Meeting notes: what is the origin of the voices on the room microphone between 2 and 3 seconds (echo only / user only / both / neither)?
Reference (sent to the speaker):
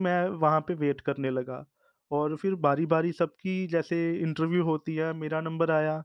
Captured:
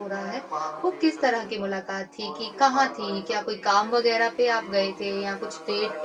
both